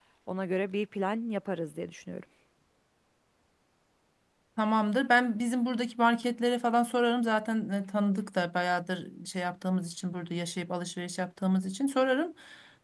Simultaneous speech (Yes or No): No